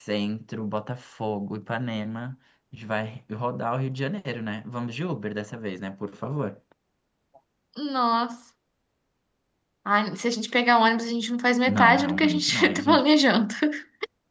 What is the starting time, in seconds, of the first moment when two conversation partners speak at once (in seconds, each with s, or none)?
11.7 s